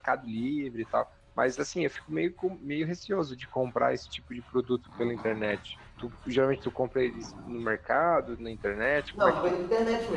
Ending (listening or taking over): taking over